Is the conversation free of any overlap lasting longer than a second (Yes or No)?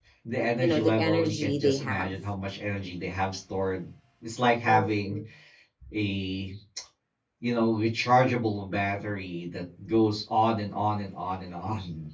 No